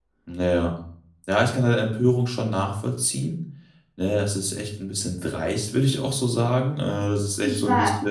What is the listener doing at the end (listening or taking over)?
listening